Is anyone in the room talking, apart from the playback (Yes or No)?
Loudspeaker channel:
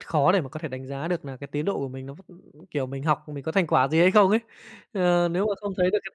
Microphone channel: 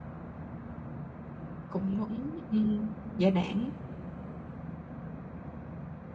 Yes